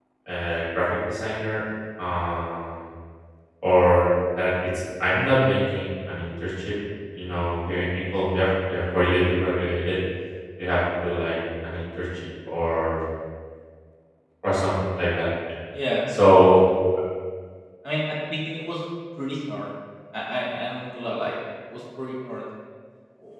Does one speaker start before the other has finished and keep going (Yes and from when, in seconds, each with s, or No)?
No